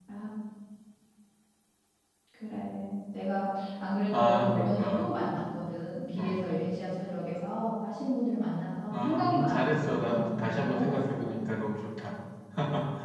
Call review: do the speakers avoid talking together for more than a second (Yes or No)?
No